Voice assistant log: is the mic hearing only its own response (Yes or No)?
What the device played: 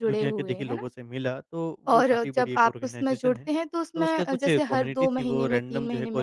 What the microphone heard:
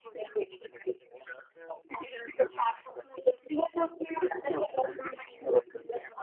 Yes